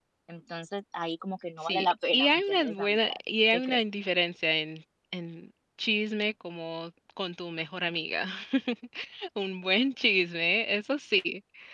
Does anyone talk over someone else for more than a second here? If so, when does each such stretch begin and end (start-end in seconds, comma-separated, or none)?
1.6-3.1